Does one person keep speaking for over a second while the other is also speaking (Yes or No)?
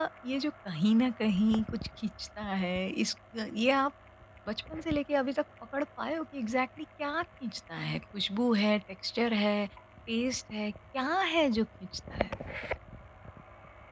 No